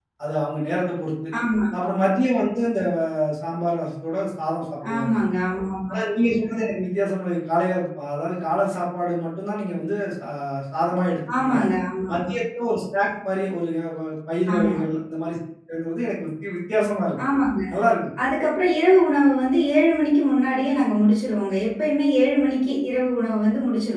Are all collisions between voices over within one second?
Yes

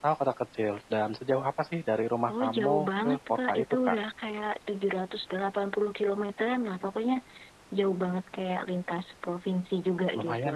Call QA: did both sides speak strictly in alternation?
No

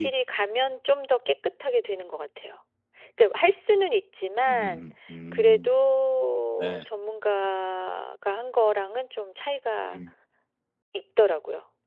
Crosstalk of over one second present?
No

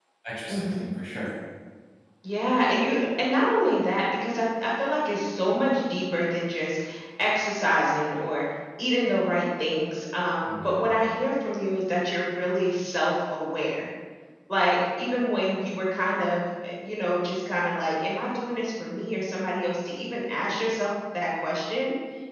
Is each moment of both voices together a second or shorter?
Yes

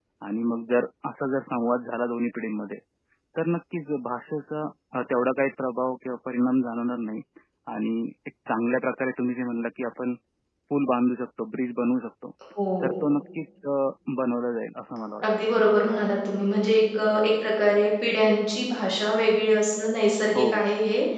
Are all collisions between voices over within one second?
Yes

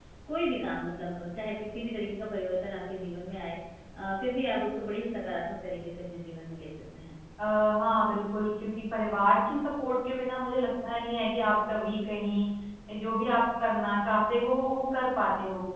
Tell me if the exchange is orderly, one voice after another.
Yes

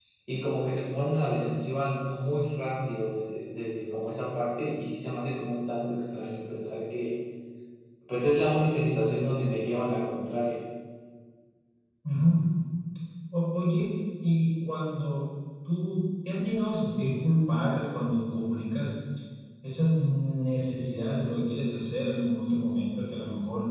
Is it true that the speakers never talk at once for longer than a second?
Yes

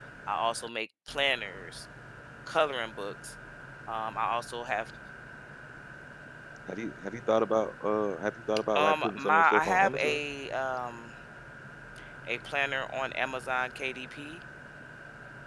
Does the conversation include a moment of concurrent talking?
Yes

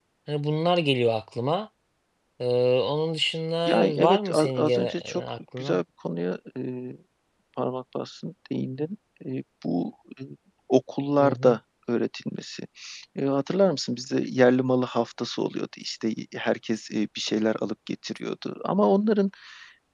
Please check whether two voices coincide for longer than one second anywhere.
Yes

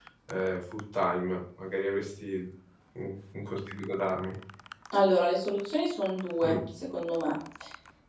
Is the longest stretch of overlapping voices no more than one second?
Yes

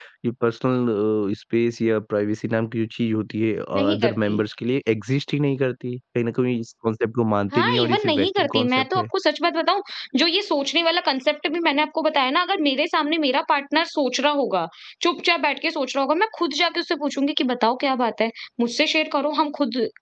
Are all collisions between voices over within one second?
No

